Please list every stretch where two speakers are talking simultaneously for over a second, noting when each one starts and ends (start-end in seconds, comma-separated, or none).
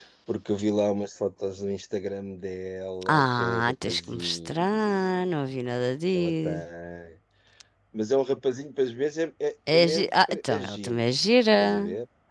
3.1-5.3, 9.7-11.0